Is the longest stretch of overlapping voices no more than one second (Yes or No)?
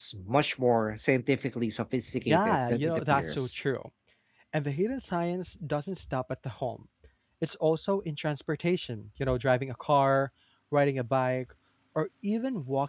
No